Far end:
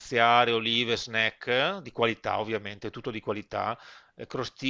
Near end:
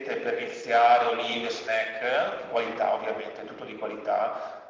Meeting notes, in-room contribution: none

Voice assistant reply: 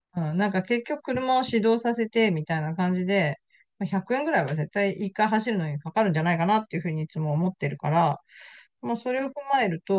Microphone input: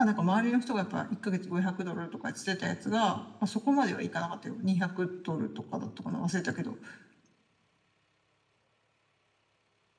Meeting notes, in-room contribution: present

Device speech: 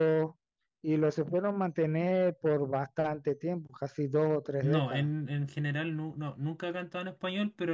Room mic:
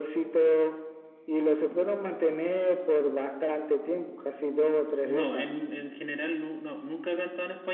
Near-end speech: none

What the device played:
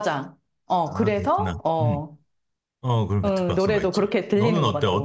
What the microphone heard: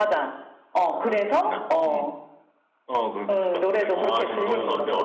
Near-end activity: present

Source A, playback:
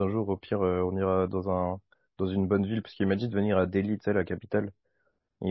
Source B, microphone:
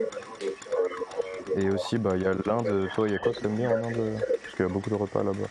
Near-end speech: present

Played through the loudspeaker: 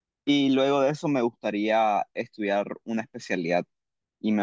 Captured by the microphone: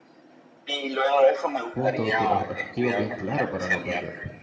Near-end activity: present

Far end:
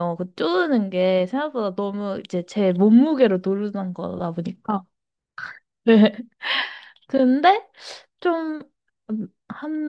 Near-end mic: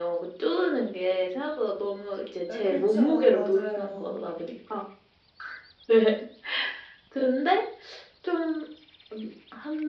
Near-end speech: present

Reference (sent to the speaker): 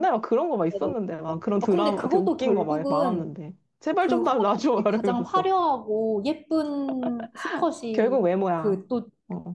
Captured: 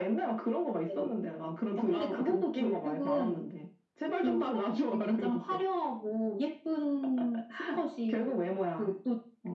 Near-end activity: none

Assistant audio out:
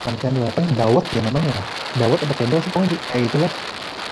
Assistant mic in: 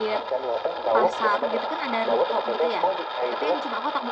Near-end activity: present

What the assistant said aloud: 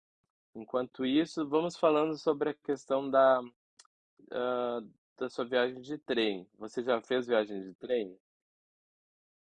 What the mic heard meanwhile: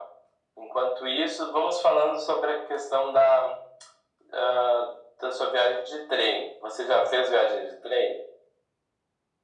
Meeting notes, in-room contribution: none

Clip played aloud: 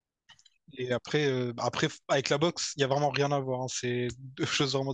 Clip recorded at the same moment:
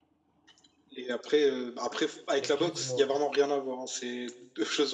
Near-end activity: present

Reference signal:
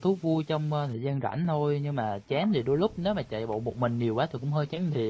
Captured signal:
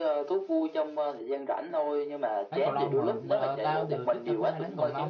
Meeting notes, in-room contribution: present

